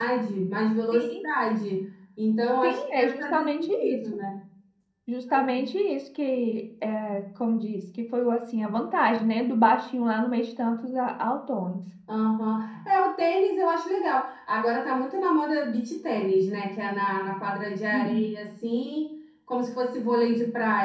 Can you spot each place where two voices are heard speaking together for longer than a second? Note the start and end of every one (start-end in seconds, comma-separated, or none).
2.6-4.0